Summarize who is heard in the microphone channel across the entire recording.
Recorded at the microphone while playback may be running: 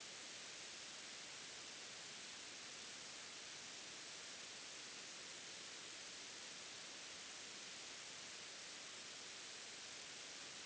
neither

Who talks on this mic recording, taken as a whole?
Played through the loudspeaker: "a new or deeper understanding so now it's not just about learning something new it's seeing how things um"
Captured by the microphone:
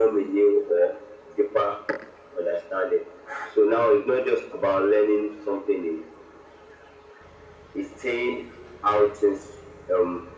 echo only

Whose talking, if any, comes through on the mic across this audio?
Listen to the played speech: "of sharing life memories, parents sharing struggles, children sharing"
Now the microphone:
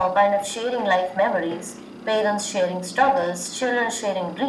echo only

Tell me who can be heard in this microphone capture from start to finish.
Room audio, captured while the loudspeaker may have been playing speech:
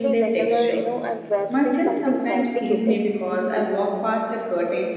both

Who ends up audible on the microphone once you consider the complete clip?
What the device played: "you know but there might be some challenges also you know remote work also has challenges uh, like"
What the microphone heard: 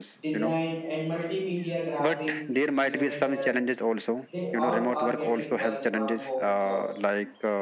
both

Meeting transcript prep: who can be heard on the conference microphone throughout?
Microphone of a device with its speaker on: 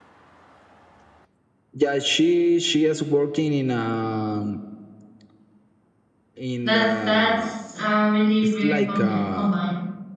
both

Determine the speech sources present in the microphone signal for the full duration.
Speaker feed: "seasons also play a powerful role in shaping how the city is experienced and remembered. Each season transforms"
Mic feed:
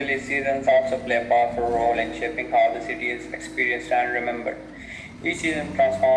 echo only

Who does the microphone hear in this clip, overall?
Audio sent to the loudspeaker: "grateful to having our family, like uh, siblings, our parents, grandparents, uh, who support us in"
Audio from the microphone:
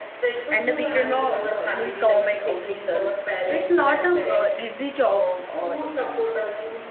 both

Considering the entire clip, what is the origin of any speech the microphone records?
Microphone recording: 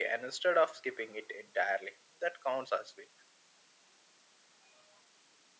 echo only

